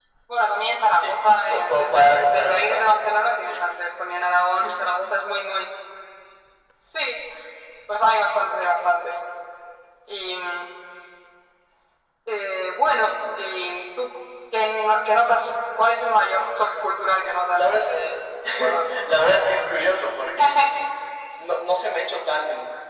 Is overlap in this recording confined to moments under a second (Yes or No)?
No